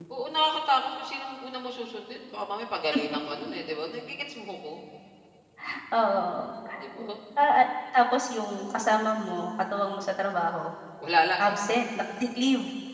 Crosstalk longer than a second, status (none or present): none